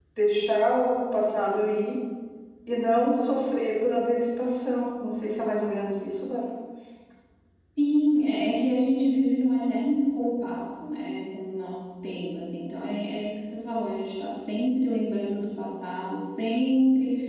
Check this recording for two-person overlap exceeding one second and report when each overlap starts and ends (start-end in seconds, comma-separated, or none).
none